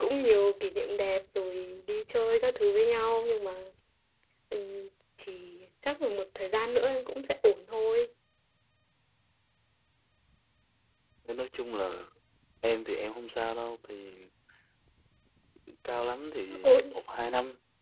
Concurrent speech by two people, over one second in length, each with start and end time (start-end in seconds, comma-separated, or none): none